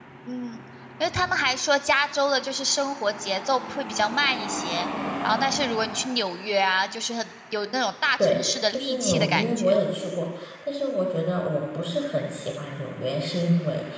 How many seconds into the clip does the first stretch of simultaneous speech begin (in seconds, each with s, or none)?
8.2 s